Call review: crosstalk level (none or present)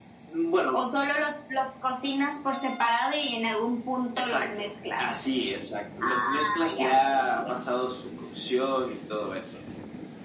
present